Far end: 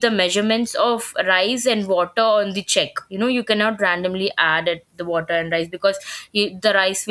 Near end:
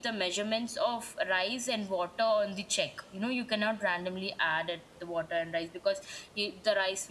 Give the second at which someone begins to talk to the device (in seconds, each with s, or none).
none